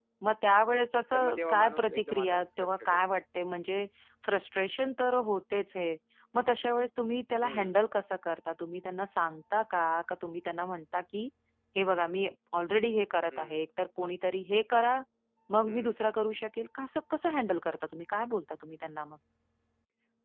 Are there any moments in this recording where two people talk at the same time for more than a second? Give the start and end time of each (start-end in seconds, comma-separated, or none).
1.1-3.1